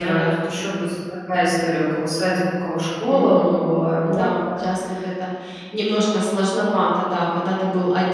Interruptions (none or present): present